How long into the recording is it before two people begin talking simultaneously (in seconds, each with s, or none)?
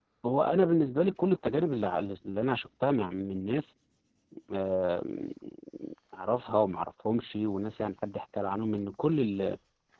none